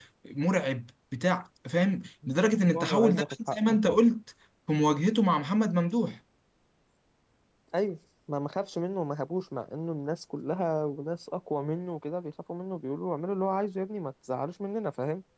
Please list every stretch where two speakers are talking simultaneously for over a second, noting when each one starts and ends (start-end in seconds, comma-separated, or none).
2.5-3.8